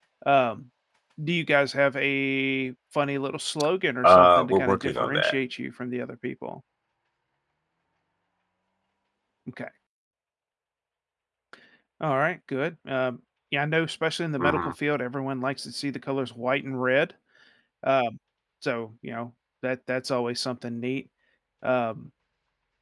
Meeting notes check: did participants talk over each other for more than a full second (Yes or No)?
Yes